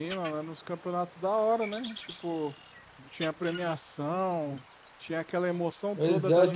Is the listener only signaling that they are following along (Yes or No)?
No